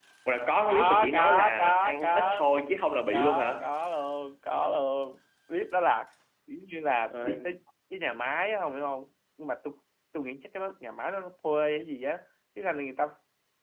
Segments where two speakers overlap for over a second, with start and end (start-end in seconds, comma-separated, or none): 0.7-2.4